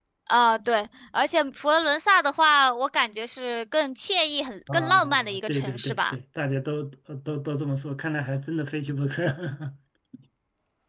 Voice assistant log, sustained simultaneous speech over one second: present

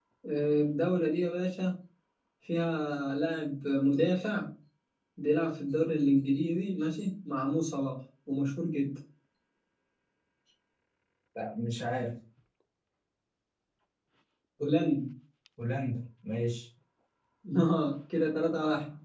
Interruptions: none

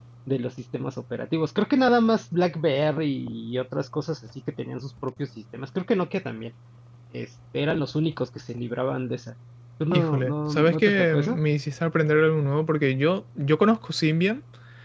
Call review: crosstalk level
present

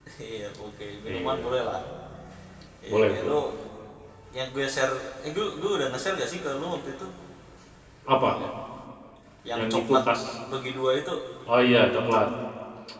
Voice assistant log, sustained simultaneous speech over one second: none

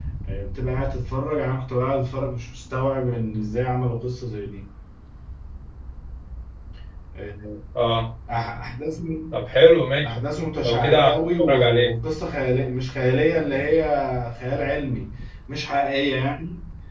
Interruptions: present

